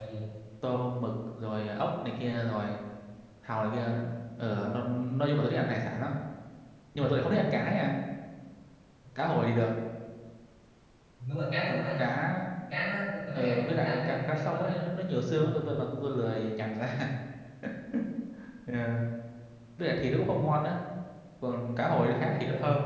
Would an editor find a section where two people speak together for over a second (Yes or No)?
Yes